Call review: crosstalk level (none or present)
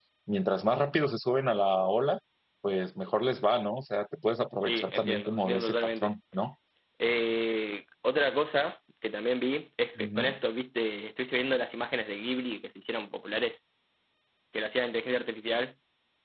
present